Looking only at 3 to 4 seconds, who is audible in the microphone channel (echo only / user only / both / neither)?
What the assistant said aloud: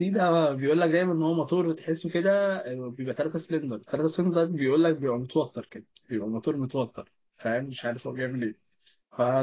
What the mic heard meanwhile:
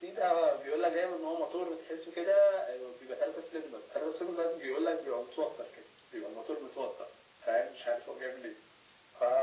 echo only